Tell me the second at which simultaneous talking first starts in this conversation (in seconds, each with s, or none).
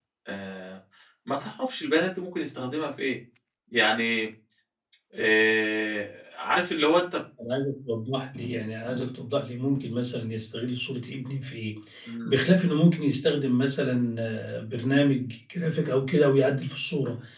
none